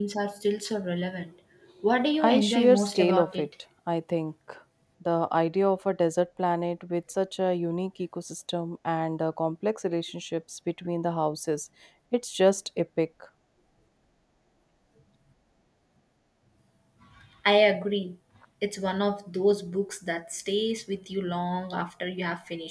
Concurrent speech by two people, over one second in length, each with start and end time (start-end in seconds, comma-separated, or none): 2.2-3.5